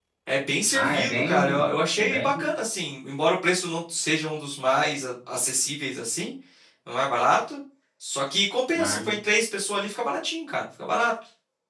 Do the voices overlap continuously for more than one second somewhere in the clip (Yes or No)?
Yes